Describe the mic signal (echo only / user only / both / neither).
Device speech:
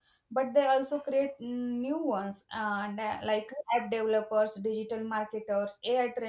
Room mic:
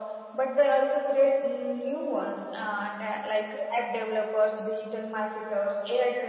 echo only